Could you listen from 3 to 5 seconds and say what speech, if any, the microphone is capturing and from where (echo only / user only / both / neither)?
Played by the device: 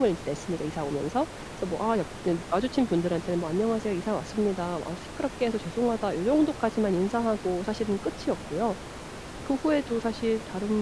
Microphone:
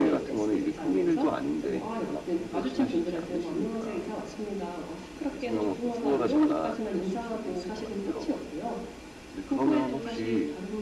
both